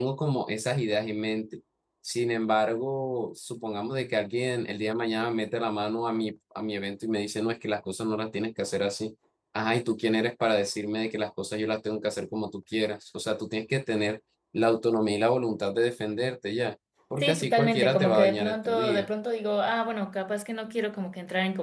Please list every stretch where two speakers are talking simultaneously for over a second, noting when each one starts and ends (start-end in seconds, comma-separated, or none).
17.2-19.1